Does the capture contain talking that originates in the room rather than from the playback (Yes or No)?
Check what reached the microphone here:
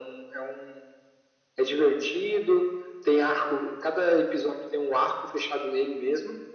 No